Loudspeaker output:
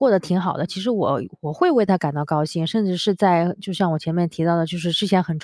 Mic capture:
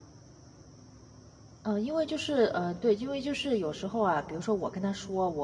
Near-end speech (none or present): present